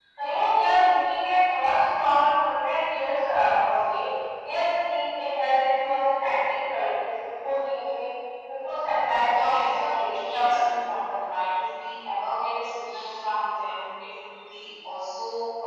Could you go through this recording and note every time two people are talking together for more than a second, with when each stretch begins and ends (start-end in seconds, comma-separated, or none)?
9.2-10.6